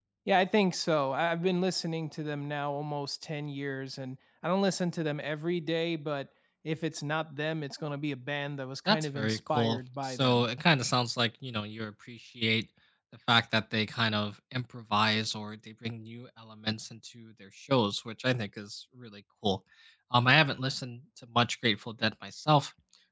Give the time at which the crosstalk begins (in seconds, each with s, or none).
8.9 s